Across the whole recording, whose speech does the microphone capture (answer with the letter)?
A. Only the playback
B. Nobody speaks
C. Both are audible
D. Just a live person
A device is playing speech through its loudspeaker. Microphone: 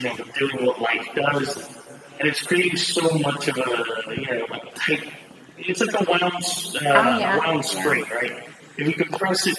C